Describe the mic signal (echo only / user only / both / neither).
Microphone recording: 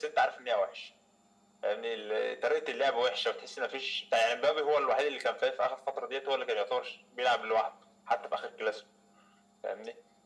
echo only